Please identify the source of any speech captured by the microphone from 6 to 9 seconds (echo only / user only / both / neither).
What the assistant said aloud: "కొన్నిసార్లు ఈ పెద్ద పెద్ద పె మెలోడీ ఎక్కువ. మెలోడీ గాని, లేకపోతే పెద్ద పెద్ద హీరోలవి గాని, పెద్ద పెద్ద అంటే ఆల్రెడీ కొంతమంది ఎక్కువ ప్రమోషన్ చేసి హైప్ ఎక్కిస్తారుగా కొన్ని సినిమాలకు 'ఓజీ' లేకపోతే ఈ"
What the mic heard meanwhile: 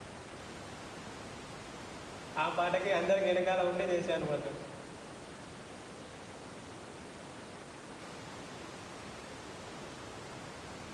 neither